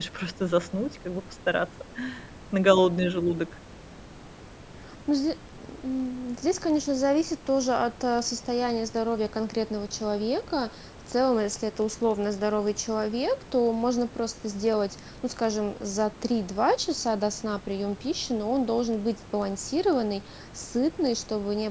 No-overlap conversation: Yes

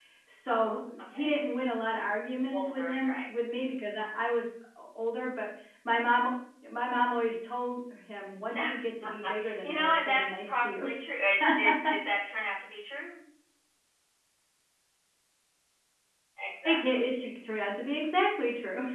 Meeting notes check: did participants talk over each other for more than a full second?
Yes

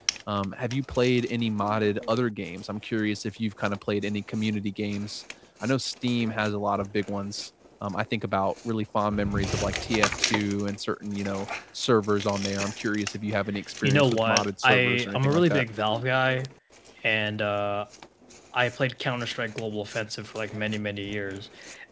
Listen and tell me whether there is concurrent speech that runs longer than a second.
Yes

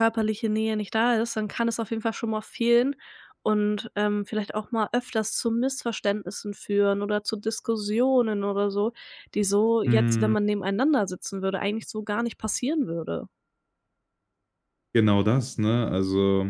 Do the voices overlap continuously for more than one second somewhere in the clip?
No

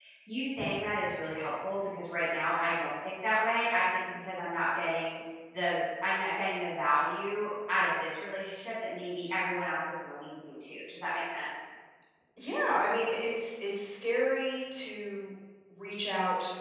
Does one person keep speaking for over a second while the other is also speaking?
No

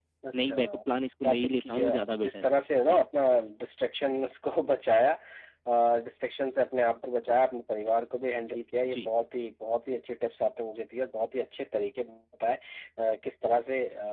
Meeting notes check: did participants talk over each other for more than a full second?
Yes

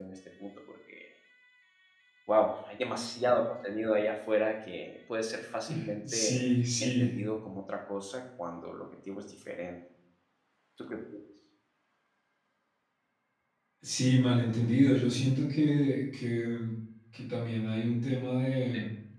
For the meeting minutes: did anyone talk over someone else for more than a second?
No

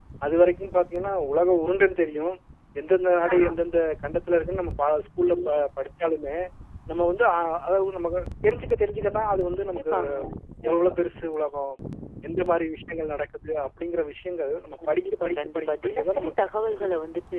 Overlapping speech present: Yes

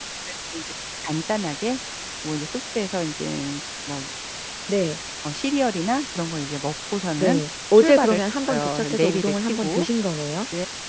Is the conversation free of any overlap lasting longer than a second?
No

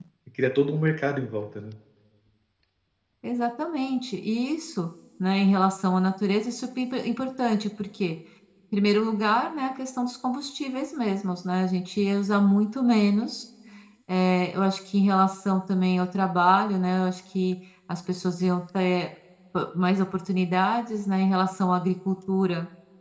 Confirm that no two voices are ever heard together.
Yes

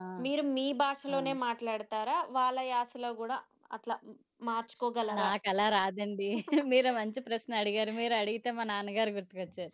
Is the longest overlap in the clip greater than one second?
No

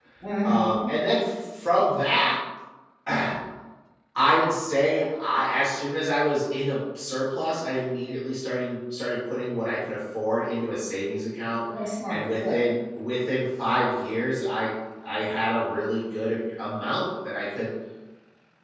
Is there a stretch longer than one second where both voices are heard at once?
No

